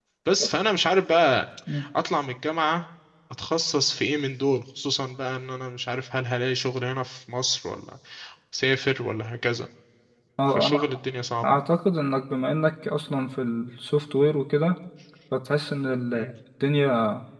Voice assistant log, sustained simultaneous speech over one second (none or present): none